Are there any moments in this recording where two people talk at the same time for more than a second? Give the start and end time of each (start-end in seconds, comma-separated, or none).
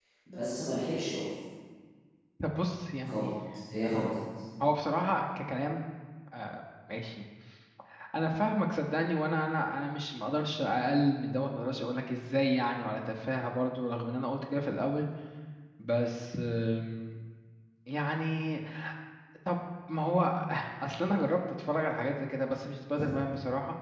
none